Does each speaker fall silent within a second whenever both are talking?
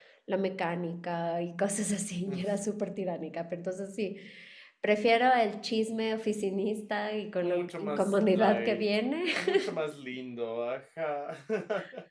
No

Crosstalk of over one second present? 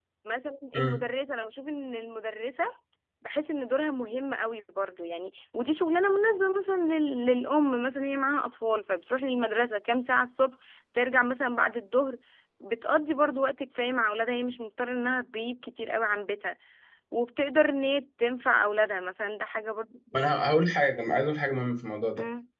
No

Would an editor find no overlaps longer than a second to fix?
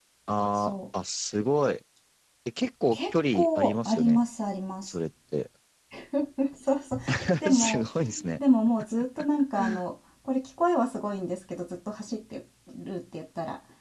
No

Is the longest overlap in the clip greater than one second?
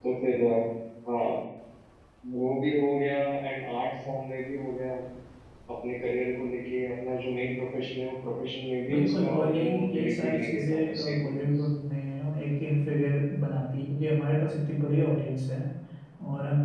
Yes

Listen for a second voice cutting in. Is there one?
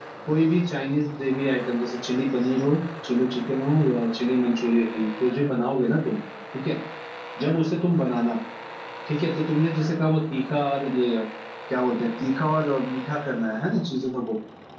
No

